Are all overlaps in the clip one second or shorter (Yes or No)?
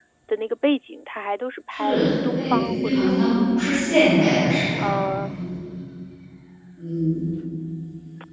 No